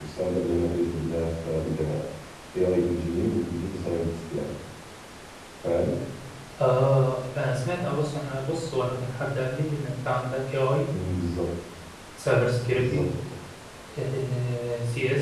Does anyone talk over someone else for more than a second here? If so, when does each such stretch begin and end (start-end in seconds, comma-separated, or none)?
none